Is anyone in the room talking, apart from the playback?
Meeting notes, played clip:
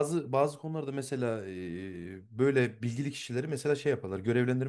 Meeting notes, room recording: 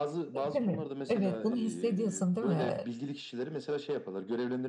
Yes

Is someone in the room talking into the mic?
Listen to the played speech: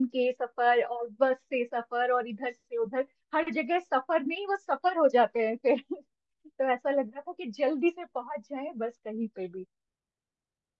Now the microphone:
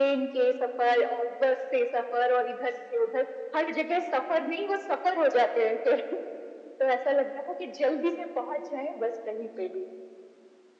No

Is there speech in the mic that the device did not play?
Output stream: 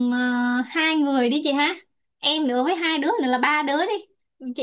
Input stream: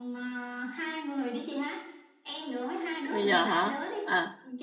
Yes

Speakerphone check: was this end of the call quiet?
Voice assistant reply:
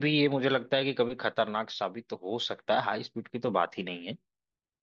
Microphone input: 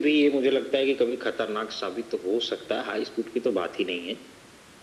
Yes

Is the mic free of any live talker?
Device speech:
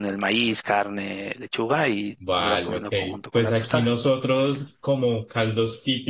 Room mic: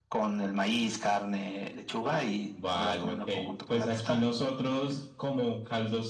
Yes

